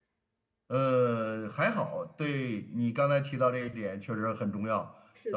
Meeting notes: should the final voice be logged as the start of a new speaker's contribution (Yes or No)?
No